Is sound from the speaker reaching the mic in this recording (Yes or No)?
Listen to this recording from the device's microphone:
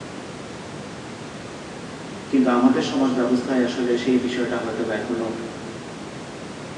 No